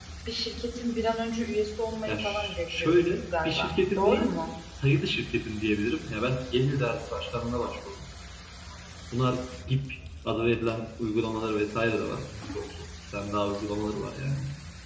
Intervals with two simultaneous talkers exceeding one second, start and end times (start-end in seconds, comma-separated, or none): 2.1-4.3